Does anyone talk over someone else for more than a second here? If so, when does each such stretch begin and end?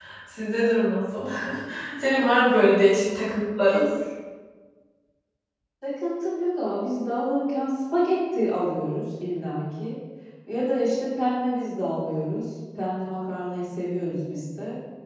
none

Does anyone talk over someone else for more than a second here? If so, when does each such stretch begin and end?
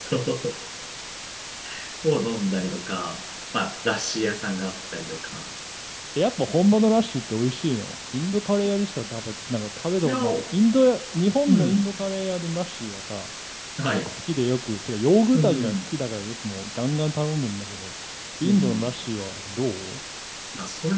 none

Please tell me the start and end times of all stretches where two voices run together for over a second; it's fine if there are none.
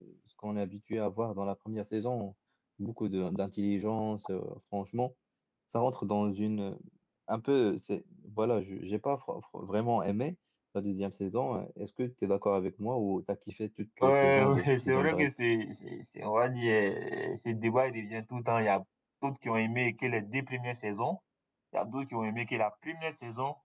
14.0-15.3

